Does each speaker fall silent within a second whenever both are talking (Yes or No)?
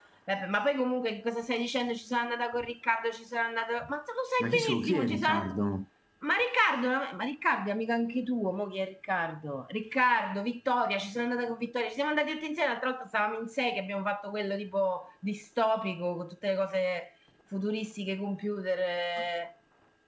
No